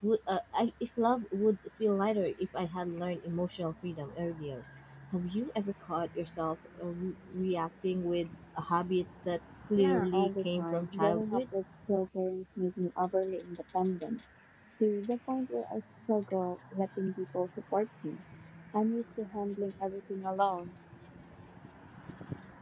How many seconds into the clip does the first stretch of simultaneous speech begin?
9.8 s

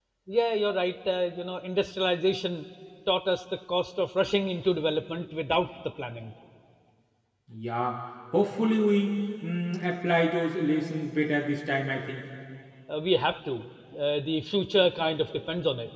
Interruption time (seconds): none

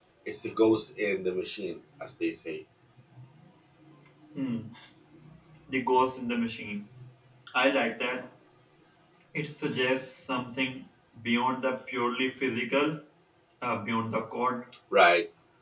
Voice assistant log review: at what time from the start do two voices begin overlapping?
none

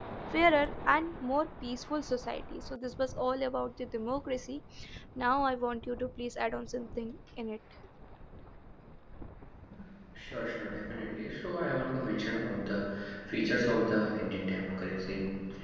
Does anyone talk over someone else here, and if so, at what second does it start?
none

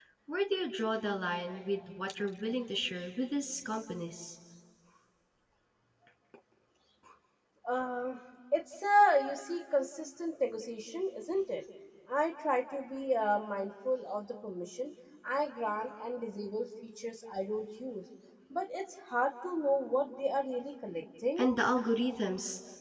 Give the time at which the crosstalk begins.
none

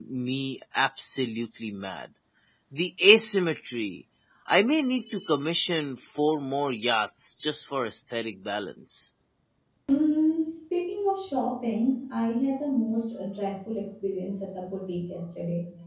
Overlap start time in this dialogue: none

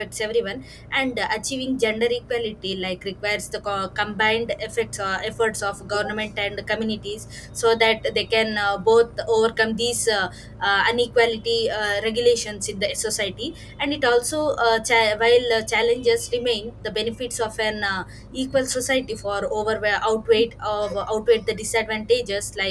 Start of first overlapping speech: none

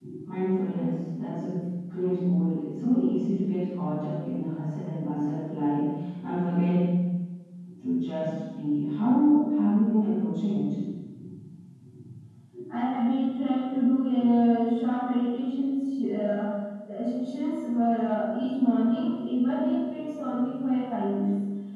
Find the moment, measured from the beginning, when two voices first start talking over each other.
none

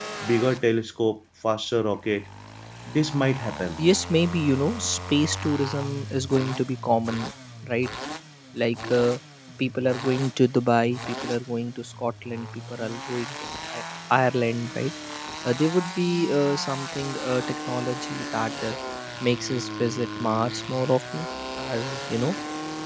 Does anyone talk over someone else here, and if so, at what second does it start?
none

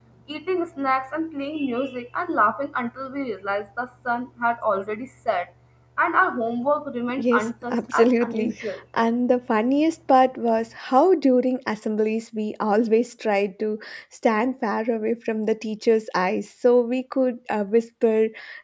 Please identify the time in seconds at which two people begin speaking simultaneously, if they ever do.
7.2 s

